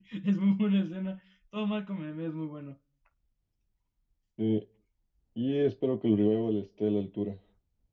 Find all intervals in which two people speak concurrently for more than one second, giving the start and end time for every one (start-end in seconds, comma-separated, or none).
none